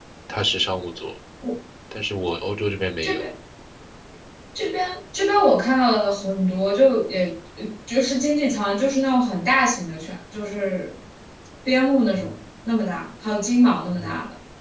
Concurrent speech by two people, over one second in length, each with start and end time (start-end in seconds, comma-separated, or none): none